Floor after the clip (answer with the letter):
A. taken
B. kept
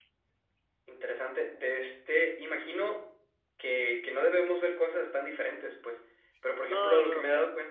B